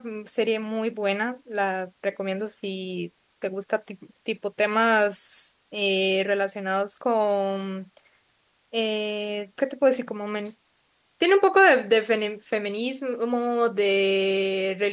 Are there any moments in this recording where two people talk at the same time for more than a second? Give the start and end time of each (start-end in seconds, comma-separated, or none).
none